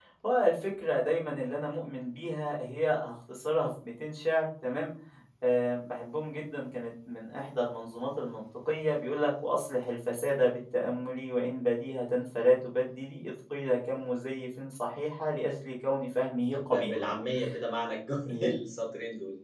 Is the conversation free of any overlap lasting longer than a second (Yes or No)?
Yes